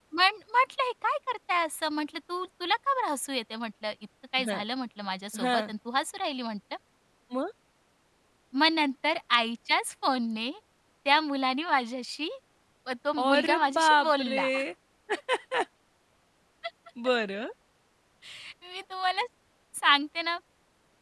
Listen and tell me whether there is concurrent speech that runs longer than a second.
Yes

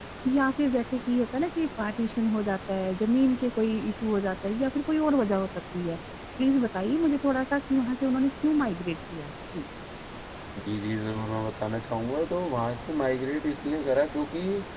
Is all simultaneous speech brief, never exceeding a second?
Yes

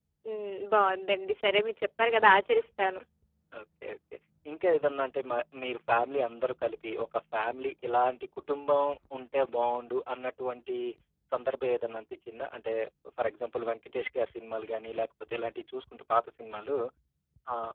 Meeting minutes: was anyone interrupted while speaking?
No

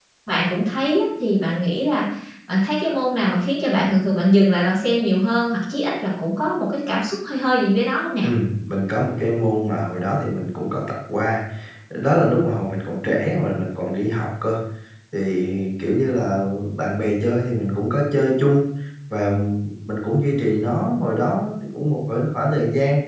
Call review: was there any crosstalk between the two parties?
No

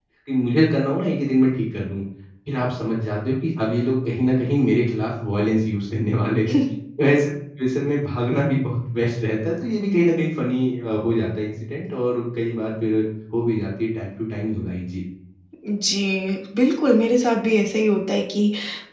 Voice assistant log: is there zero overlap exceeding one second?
Yes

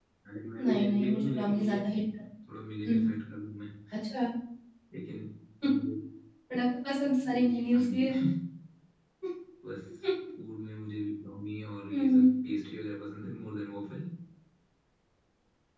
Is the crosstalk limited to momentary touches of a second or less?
No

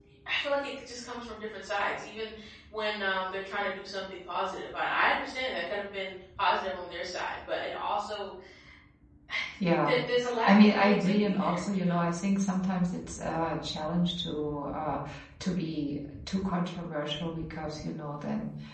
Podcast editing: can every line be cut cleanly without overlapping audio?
No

